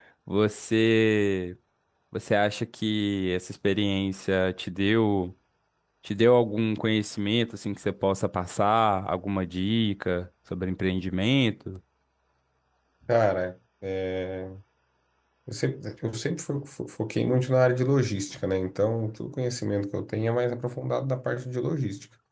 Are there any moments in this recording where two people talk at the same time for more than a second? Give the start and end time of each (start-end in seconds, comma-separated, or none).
none